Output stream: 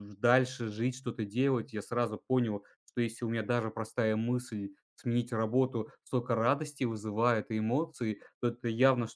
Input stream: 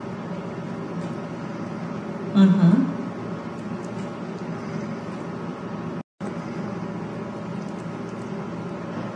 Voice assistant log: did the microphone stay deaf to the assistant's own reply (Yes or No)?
Yes